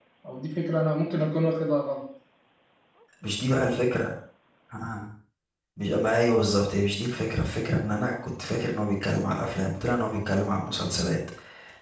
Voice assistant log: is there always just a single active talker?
Yes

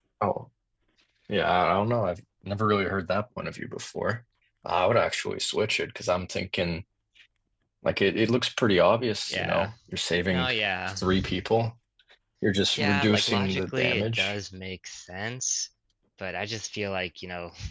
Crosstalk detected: Yes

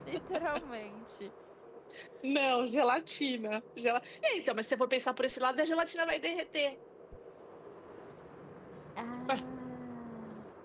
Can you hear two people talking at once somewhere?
No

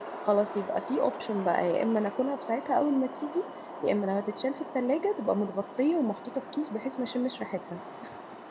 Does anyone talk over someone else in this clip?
No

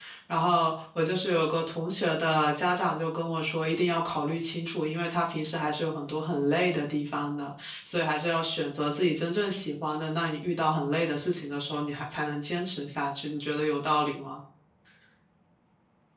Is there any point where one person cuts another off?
No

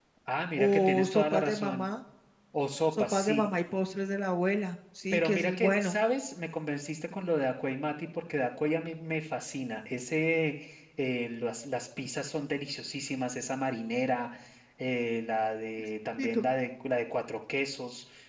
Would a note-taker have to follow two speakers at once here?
Yes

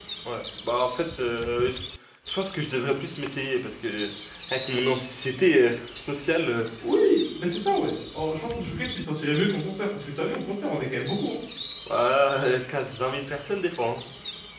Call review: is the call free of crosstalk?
Yes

